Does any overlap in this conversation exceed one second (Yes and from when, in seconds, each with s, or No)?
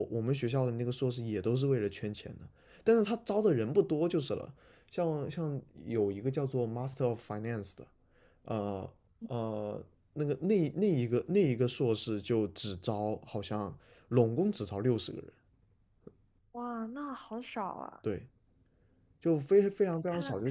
No